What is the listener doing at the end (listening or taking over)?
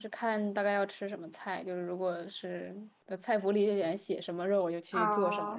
taking over